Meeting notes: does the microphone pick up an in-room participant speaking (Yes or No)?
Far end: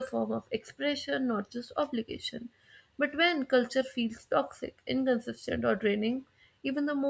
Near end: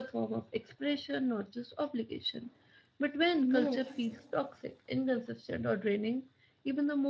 Yes